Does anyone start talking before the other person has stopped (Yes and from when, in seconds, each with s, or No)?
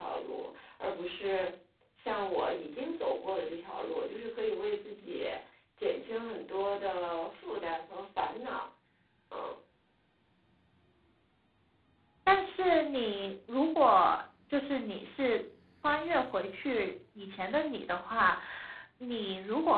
No